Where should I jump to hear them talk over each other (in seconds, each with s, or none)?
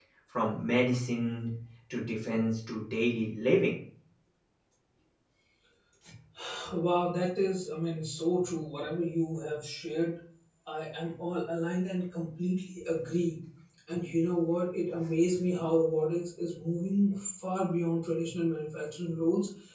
none